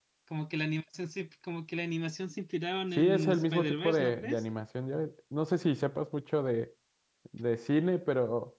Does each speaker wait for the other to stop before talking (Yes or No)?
No